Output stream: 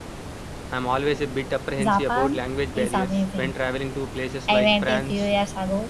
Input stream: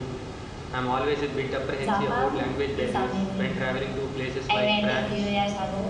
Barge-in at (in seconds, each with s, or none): none